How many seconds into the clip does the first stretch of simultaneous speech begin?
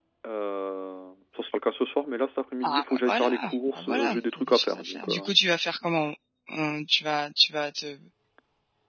3 s

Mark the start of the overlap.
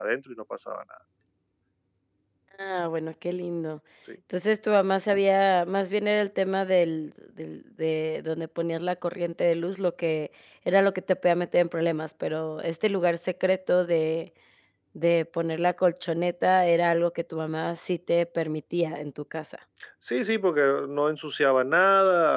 none

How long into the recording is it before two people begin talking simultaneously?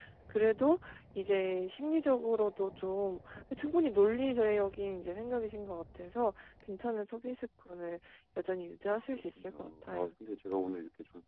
9 s

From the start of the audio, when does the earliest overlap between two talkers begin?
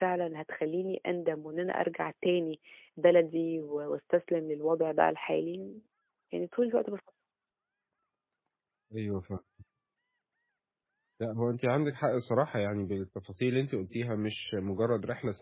none

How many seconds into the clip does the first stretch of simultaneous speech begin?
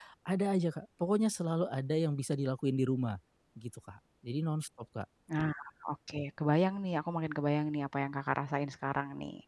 none

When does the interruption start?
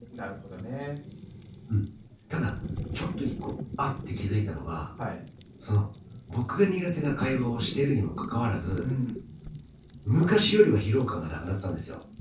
none

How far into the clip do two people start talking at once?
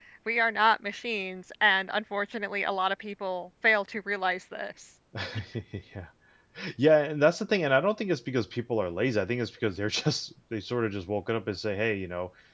none

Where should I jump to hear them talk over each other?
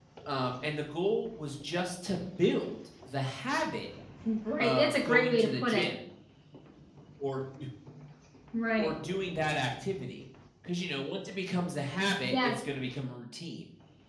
5 s

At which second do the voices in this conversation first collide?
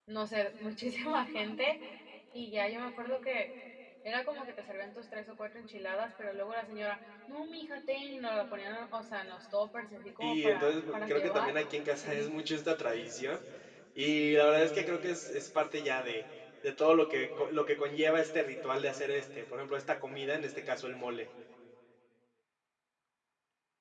10 s

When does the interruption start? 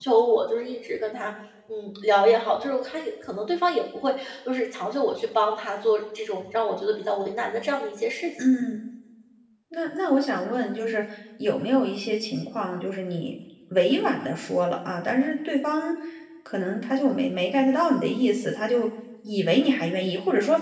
none

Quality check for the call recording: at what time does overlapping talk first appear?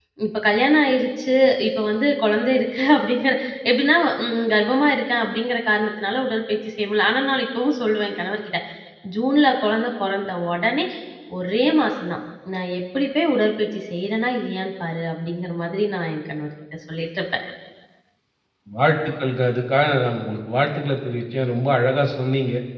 none

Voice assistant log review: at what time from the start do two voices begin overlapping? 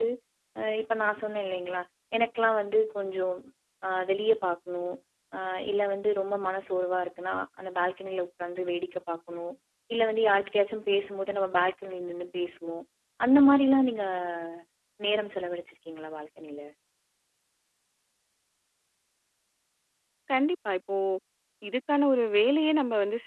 none

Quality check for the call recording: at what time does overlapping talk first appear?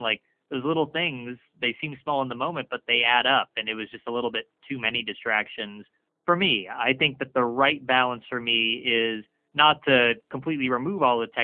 none

